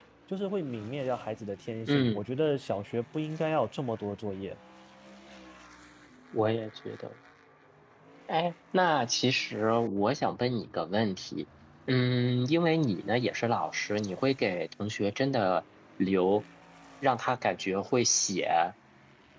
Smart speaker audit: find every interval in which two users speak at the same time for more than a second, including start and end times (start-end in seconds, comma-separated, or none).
none